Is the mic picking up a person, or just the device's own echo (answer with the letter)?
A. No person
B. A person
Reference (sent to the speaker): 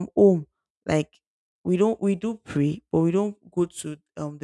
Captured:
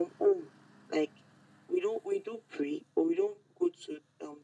A